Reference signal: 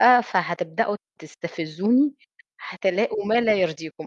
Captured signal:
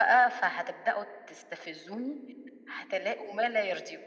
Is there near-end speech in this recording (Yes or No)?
No